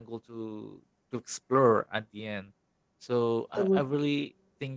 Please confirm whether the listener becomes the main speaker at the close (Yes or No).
No